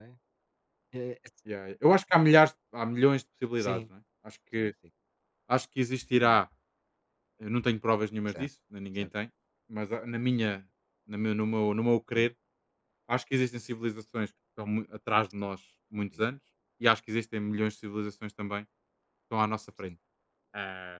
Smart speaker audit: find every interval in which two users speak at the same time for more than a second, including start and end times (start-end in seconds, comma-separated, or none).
none